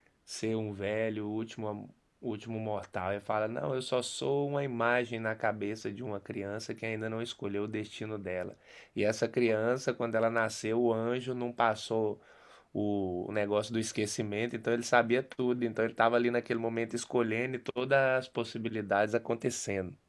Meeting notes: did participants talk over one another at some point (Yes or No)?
No